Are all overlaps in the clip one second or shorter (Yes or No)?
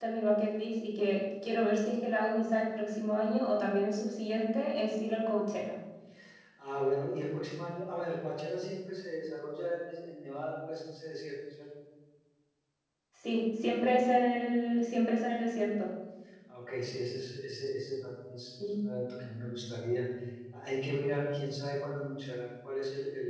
Yes